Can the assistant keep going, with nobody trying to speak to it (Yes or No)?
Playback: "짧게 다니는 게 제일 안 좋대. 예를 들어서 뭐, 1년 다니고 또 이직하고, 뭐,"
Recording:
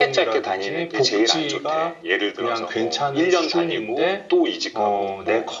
No